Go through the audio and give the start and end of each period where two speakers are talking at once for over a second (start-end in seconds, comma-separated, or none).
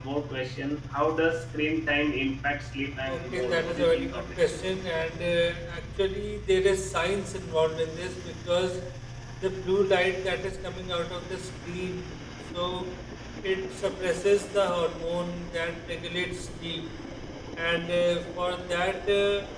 3.0-4.3